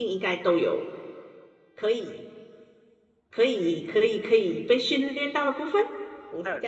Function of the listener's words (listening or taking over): taking over